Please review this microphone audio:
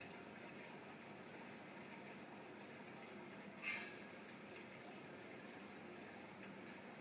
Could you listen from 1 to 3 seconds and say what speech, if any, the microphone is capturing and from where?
neither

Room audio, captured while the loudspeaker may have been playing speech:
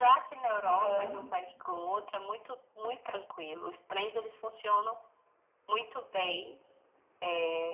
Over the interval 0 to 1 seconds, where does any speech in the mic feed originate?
both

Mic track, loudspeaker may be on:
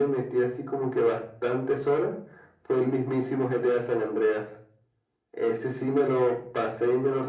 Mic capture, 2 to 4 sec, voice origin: echo only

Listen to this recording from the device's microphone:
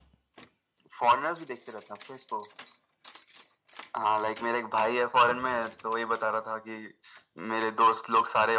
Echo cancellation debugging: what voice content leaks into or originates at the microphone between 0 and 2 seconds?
echo only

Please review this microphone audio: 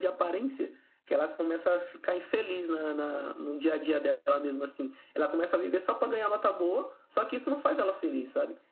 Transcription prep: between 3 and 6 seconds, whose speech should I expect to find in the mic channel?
echo only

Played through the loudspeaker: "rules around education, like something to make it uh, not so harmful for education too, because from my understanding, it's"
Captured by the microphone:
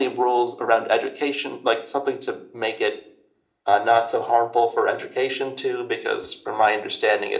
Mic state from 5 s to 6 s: echo only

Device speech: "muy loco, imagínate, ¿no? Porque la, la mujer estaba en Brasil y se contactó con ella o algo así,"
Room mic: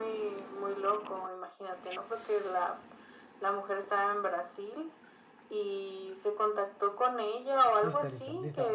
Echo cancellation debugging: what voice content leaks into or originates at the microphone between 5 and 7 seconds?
echo only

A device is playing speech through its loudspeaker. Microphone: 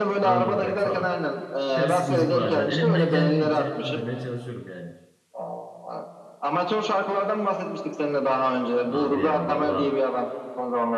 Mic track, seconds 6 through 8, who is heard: echo only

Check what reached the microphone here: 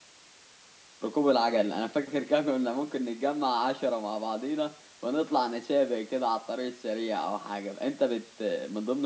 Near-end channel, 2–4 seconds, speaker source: user only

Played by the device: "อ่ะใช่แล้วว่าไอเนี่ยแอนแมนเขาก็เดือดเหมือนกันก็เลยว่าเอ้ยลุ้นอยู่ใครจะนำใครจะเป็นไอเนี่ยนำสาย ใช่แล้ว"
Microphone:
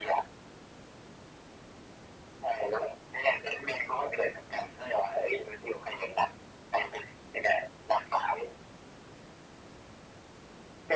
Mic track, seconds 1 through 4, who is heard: echo only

